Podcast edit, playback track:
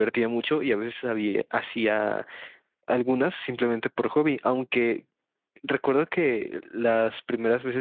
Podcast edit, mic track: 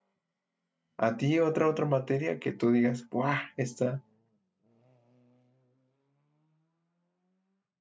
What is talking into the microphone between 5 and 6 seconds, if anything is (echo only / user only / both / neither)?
neither